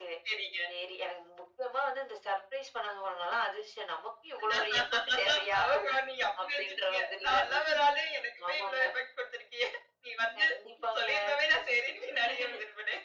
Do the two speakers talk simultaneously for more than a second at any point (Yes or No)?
Yes